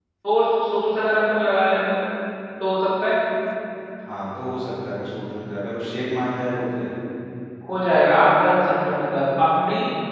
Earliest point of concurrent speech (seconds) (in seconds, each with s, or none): none